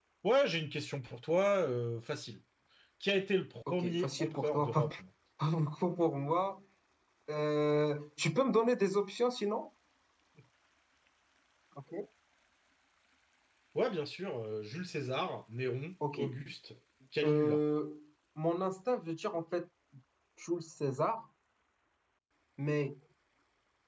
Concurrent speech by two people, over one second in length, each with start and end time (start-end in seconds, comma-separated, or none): 3.7-4.9